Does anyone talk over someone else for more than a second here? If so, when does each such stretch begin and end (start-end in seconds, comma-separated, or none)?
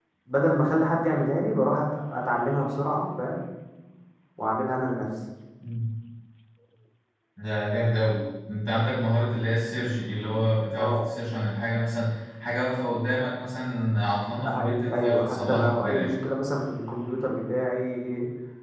14.4-16.1